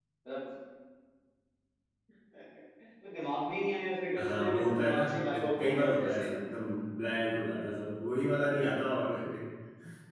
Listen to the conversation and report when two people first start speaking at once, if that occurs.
4.2 s

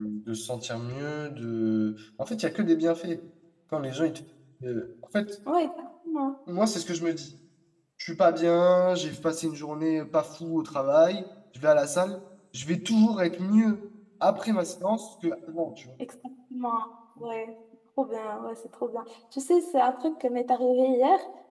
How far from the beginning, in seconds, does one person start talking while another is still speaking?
none

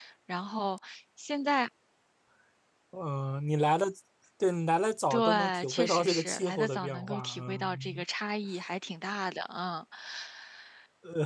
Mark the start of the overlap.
5.1 s

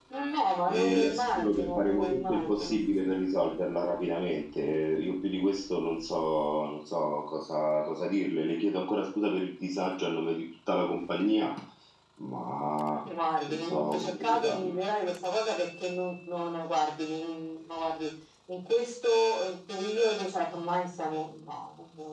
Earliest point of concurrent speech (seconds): 0.7 s

